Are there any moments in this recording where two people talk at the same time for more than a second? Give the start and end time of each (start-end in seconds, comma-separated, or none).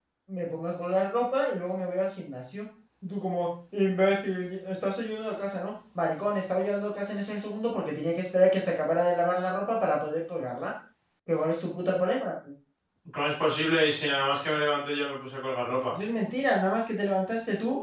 none